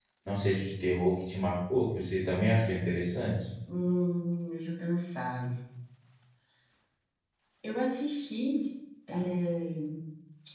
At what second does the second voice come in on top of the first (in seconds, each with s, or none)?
none